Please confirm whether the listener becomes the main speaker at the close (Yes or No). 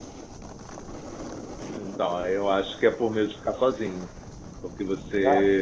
No